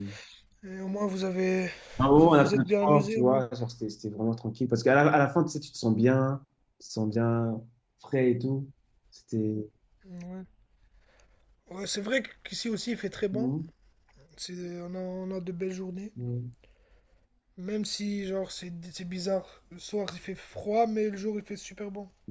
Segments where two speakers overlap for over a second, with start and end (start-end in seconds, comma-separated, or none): 2.2-3.4